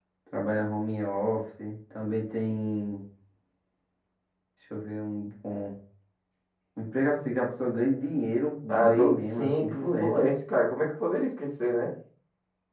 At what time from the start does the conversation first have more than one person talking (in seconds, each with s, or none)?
8.7 s